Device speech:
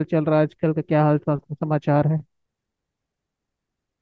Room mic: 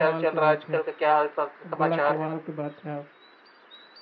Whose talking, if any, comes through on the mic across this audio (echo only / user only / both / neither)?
both